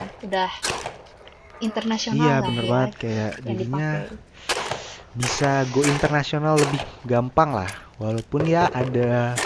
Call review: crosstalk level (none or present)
present